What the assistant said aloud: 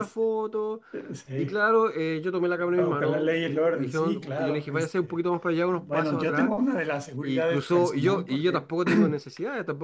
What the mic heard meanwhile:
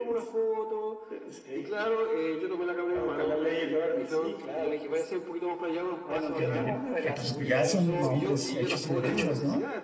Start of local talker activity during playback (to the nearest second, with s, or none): 6 s